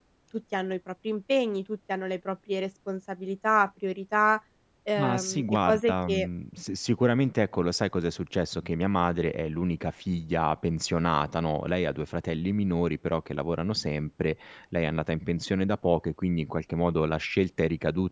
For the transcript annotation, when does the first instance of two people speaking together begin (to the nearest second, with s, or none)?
5 s